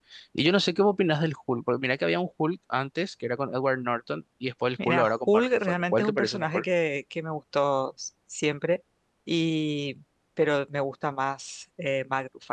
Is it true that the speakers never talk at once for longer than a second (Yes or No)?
No